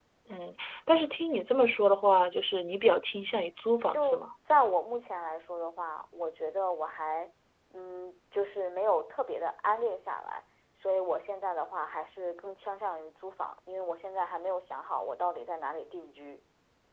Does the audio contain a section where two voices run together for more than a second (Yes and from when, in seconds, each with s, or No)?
No